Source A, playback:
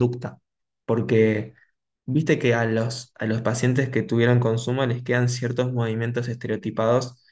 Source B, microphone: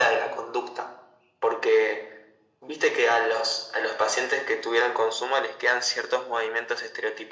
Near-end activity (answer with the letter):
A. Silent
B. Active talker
A